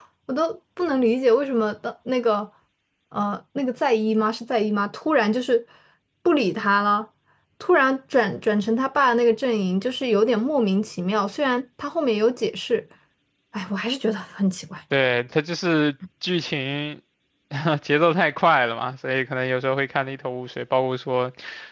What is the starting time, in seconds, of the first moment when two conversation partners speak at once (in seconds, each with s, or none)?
none